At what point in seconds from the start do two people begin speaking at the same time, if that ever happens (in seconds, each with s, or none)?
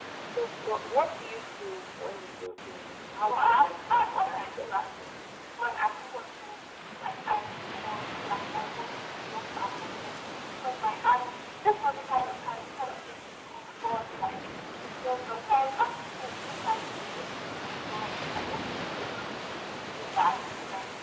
3.2 s